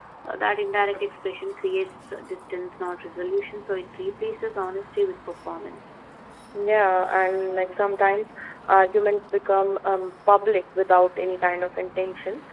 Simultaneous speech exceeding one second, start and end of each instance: none

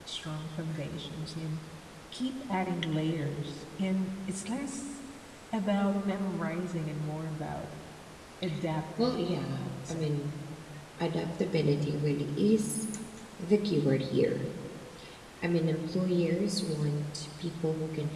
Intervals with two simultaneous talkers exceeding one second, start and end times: 9.0-10.2

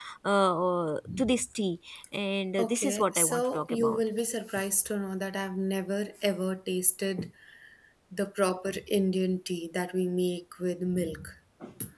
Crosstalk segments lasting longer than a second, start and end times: 2.6-4.0

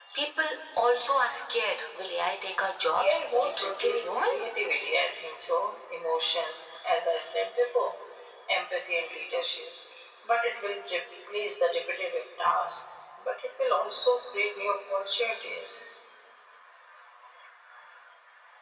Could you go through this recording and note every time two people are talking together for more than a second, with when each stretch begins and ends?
3.0-4.5

